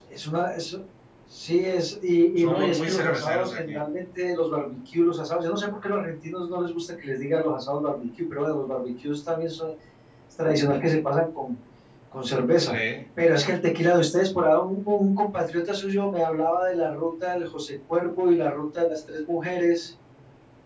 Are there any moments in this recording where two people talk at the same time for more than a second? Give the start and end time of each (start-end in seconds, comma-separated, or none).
2.4-3.7